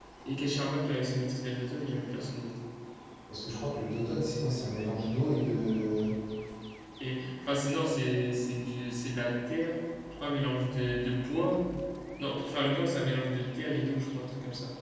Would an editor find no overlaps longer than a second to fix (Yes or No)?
Yes